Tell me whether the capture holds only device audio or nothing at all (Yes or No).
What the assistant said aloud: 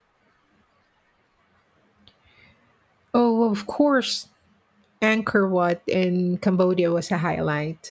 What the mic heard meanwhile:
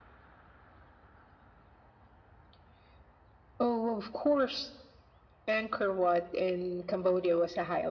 Yes